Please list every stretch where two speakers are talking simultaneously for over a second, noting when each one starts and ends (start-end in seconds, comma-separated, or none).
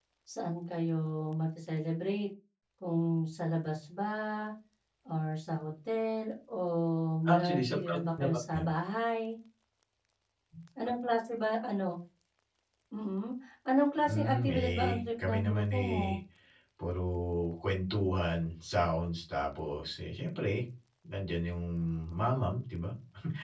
7.2-8.7, 14.0-16.2